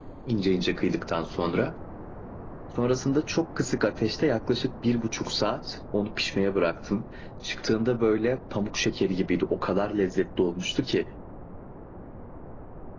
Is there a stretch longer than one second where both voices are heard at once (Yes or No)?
No